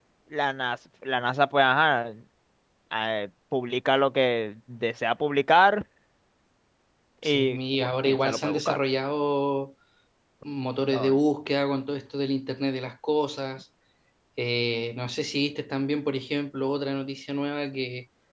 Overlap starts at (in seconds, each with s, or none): 7.2 s